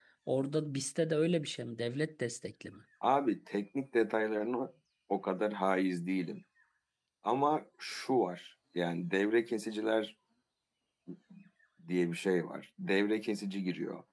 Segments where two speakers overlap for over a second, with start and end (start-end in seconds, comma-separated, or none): none